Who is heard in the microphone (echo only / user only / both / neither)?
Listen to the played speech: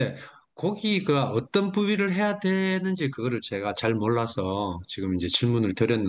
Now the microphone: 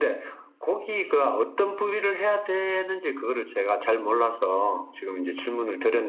echo only